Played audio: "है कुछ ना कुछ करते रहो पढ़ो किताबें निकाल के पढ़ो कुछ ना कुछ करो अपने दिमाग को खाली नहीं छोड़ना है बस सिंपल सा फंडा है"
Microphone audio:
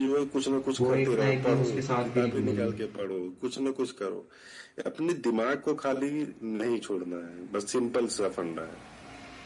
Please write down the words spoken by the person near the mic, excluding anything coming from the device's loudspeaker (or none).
वो एक ना एक दिन उसके साथ भी निकलेगी